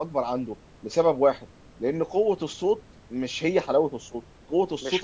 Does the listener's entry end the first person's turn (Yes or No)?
No